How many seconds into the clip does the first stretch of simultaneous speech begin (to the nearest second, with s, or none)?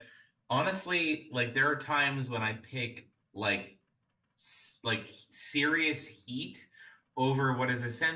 none